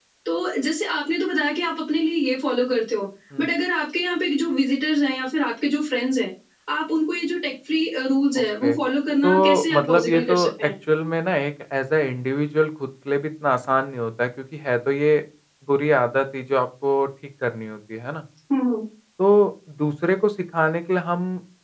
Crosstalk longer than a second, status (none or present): present